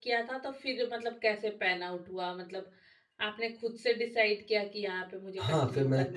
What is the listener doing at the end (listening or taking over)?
taking over